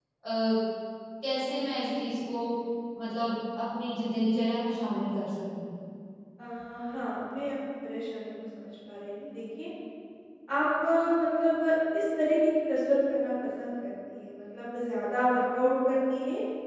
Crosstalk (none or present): none